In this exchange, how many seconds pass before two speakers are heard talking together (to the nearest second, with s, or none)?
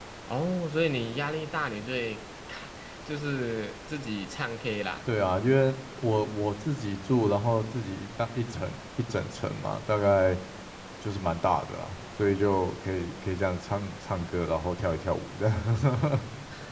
none